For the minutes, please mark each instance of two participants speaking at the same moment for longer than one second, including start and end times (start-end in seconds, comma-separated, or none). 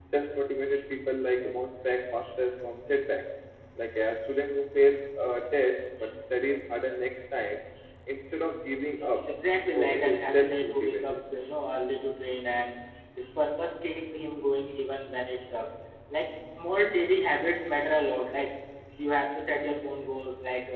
9.8-11.2